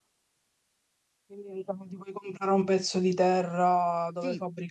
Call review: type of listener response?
taking over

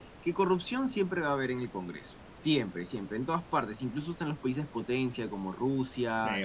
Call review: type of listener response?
listening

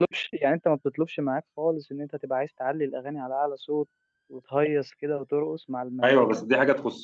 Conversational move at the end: taking over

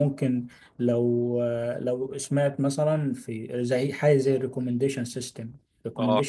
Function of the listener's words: listening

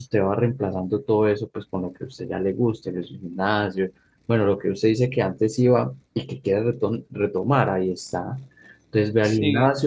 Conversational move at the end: listening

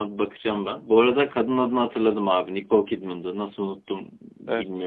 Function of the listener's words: listening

